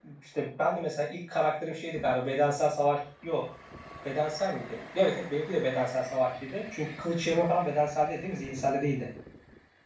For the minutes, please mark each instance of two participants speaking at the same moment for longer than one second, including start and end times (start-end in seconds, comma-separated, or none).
none